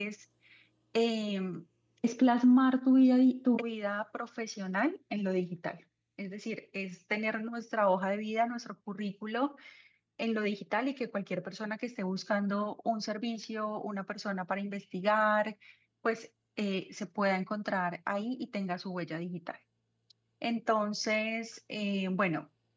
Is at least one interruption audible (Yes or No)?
No